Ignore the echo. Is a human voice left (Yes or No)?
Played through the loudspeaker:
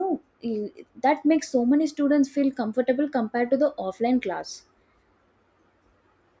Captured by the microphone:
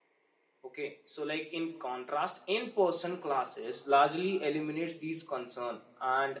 Yes